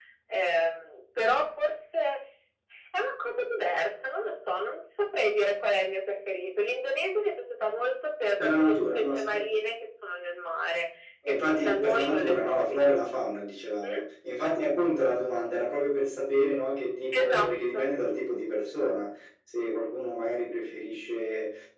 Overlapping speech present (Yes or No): Yes